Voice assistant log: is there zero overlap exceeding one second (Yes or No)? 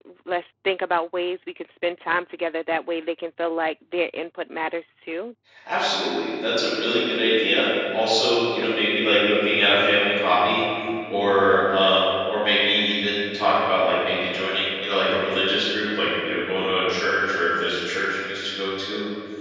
Yes